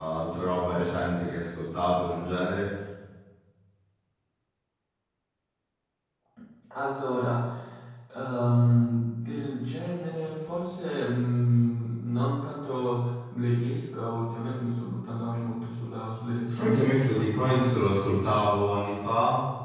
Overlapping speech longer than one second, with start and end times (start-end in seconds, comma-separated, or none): 16.5-17.8